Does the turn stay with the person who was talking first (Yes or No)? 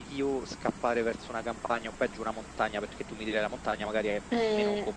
Yes